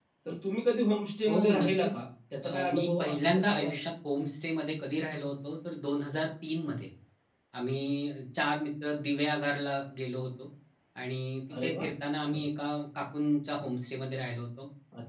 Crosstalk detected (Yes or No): Yes